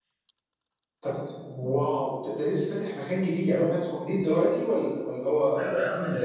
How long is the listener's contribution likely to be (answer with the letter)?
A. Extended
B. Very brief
A